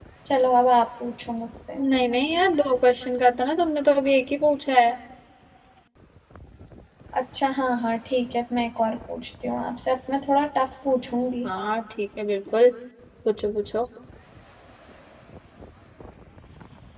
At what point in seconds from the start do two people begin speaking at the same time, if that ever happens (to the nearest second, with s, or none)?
none